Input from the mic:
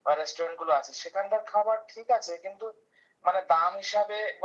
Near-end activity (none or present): none